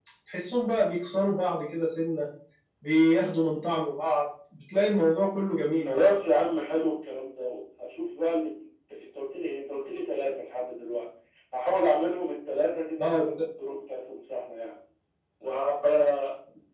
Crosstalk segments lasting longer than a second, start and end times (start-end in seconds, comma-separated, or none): none